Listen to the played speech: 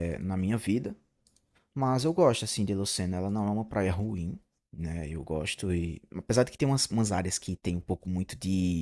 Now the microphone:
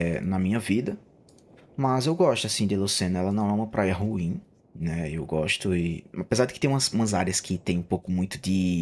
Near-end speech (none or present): none